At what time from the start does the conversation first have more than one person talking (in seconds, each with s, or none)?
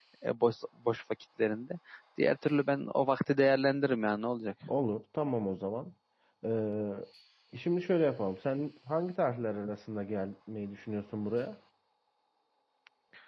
none